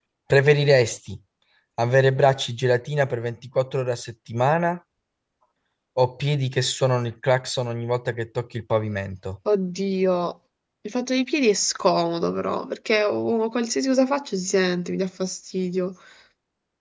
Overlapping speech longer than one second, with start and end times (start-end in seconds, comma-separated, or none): none